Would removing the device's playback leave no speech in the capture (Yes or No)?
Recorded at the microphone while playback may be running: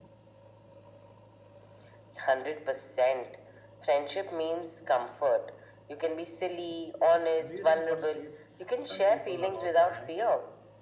No